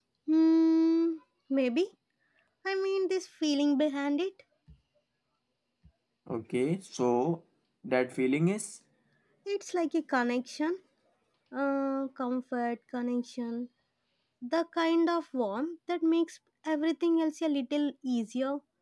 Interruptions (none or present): none